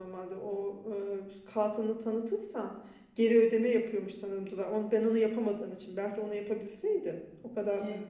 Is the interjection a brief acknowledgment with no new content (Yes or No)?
Yes